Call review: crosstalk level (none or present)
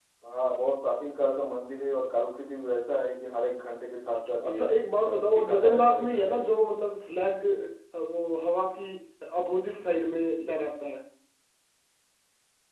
present